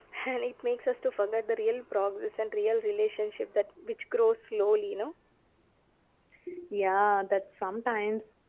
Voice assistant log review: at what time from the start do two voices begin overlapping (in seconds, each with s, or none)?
none